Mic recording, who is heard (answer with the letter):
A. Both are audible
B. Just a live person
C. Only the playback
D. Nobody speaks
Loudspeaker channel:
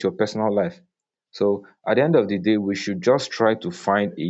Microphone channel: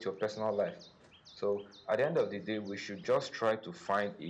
C